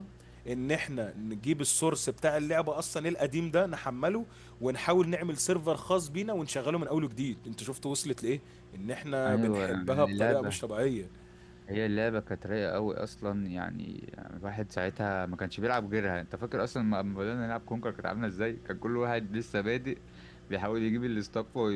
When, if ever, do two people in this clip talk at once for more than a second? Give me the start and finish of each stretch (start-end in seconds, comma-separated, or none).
9.3-10.6